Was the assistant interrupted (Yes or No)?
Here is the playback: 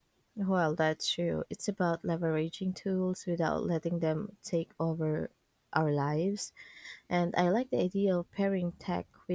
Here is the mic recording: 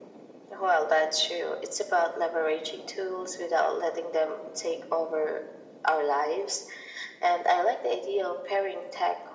No